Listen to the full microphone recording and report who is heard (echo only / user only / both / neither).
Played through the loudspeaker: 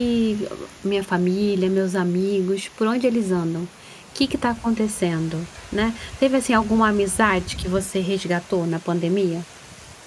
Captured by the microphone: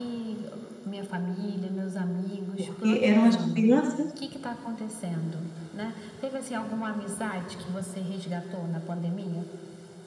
both